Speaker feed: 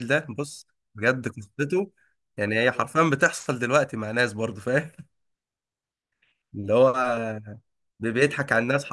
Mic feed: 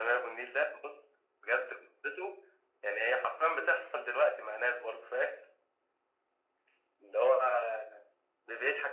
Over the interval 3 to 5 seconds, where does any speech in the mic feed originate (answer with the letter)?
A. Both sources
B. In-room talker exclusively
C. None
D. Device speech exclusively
D